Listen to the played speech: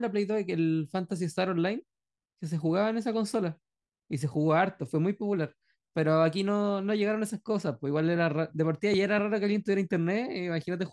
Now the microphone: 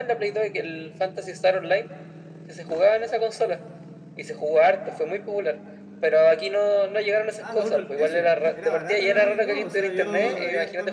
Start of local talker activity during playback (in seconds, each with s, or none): 7.4 s